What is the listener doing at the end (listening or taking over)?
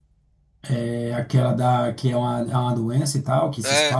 taking over